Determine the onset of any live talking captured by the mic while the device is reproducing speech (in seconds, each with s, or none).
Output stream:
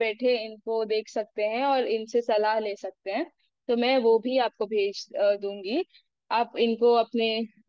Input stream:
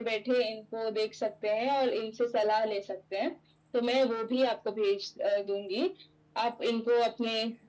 none